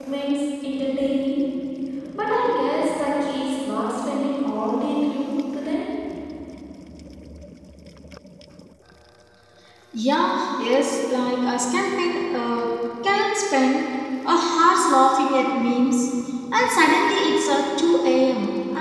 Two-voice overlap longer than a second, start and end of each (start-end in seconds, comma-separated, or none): none